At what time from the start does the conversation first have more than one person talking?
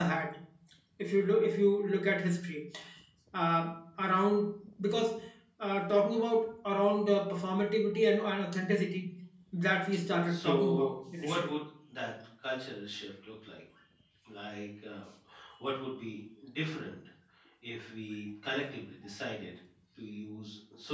10.2 s

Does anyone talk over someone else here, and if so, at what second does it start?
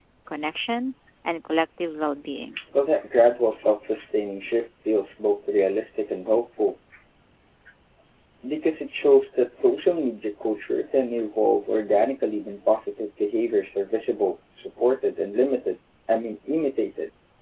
none

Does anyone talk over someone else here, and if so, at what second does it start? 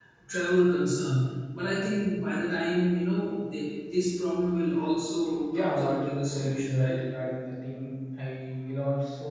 5.5 s

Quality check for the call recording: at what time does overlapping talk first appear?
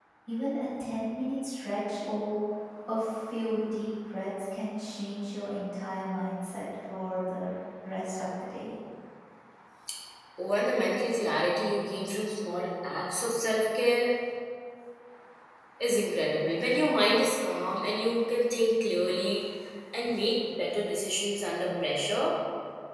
none

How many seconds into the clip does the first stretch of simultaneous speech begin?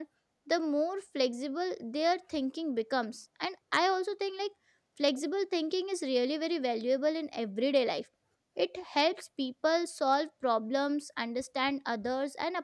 none

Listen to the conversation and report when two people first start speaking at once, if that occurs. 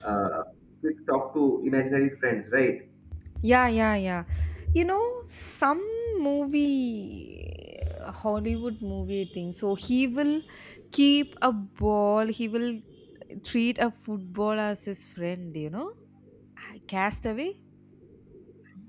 none

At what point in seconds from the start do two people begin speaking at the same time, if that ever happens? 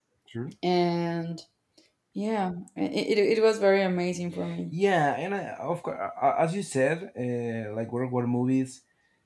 none

